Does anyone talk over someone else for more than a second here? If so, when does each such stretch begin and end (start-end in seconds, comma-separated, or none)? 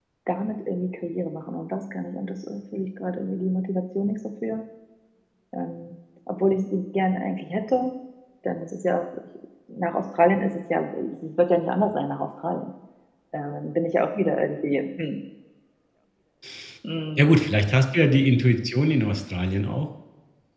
none